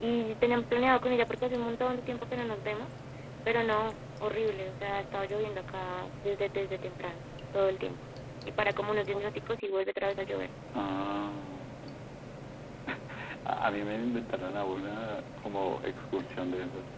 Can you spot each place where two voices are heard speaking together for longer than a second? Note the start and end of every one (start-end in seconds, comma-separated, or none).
none